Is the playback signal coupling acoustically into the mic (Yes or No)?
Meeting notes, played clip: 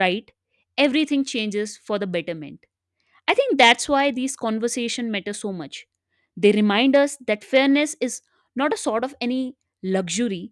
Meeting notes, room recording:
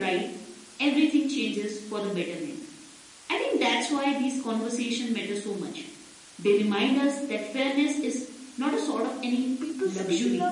Yes